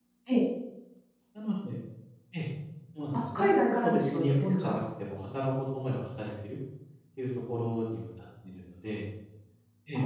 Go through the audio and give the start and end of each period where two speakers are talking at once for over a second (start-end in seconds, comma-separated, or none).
3.1-4.8